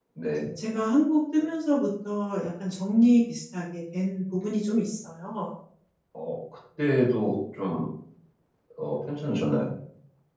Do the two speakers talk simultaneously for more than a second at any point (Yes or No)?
No